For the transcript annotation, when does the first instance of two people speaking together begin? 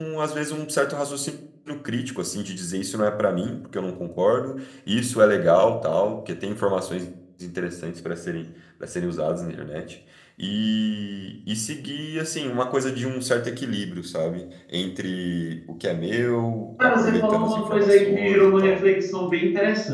17 s

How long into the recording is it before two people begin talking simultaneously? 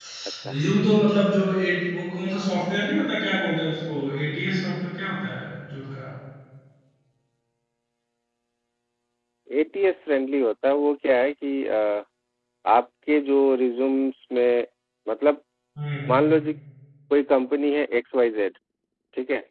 none

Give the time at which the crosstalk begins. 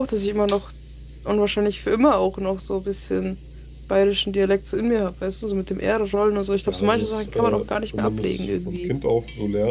7 s

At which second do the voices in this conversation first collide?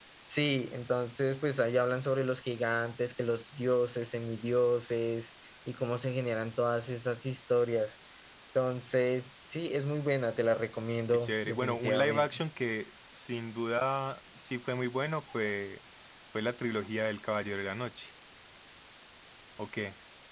11 s

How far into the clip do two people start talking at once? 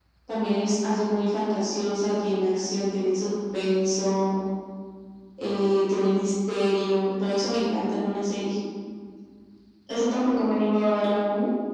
none

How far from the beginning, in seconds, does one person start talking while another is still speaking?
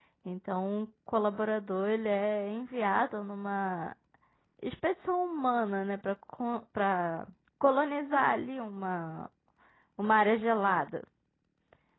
none

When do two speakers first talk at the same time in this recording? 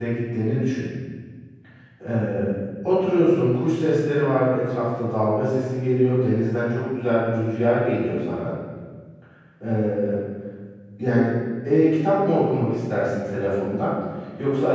none

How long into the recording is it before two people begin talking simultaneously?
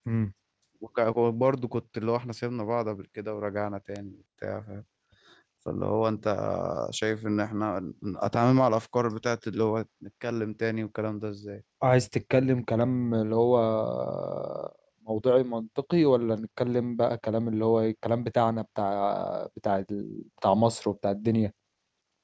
none

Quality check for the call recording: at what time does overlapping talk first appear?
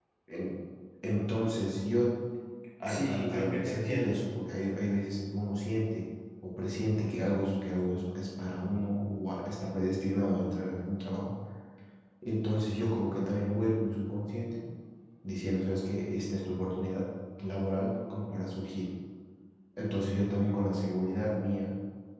3 s

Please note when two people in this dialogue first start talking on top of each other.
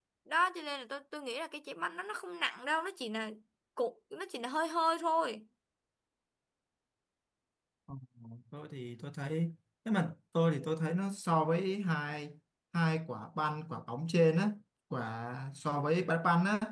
none

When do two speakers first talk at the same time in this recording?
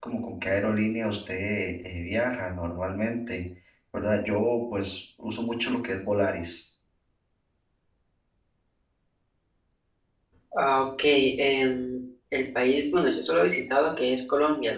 none

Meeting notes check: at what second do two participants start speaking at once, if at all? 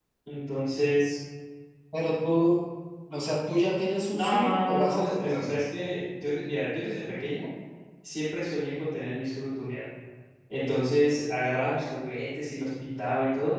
4 s

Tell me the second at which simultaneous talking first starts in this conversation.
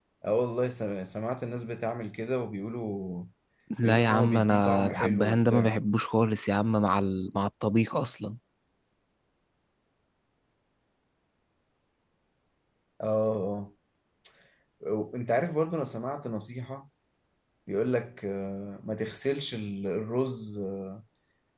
4 s

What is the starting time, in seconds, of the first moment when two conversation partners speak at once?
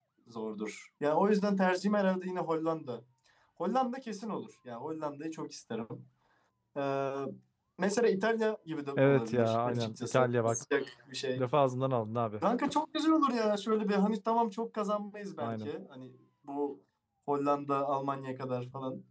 9 s

